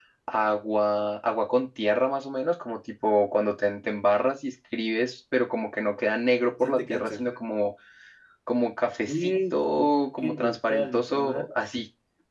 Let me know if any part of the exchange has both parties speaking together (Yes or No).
Yes